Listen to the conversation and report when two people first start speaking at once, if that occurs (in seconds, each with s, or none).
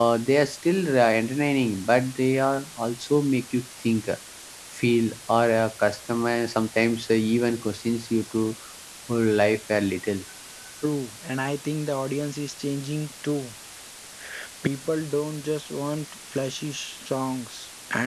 none